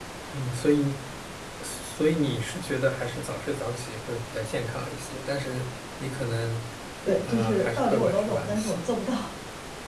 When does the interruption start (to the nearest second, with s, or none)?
7 s